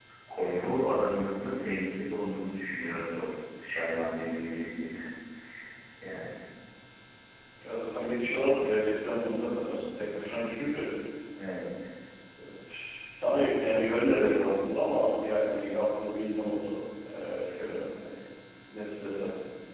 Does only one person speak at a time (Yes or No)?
Yes